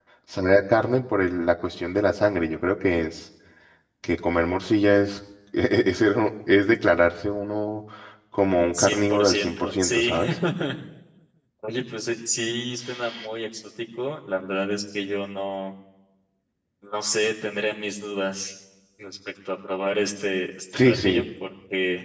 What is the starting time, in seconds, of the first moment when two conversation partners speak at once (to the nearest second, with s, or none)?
9 s